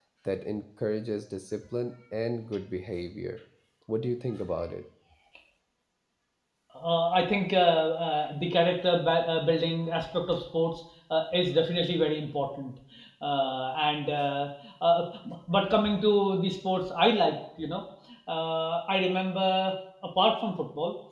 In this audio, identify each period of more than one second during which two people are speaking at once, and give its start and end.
none

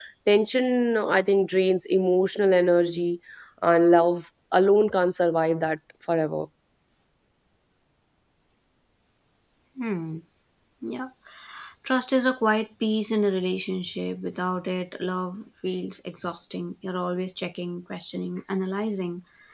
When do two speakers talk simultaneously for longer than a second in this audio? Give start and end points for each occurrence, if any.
none

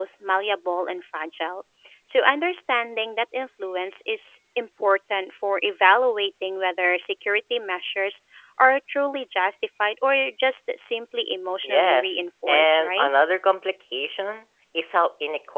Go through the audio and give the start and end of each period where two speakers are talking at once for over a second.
11.6-13.1

